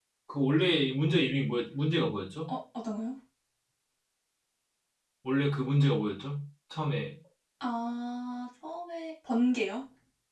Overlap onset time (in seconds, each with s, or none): none